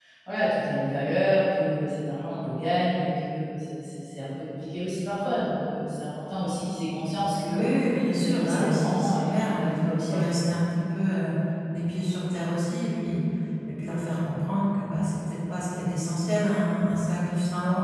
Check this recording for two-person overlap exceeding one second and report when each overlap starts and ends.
8.1-10.2

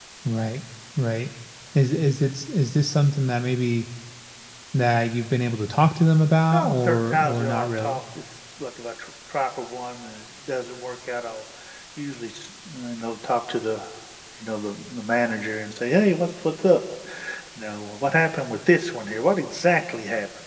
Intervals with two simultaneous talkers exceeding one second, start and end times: 6.5-8.0

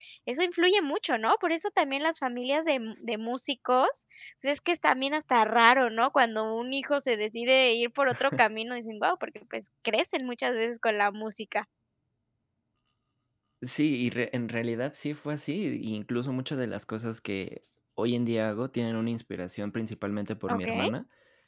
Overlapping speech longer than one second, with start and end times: none

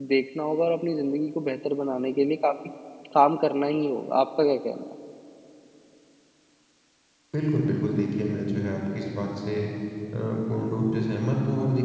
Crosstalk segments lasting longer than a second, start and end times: none

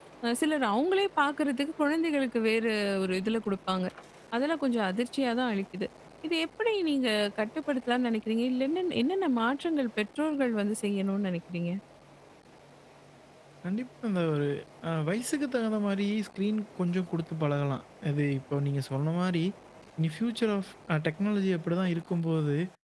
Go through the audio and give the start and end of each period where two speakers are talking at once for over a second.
none

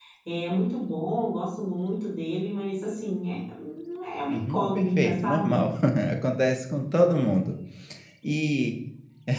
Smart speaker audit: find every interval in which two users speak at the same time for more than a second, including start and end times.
4.3-5.6

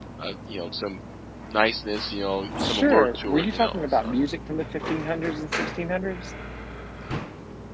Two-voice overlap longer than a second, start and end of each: 2.6-4.1

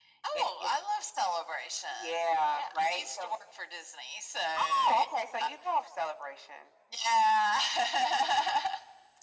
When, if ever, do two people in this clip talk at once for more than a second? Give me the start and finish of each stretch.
1.9-3.3

